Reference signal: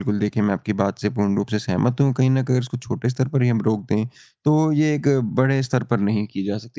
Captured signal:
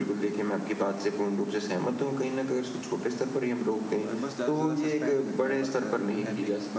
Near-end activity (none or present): present